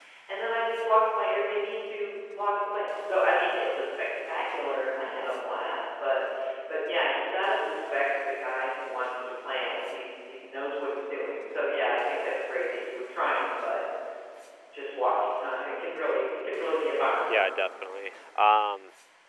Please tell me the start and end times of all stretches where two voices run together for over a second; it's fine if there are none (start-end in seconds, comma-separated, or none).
none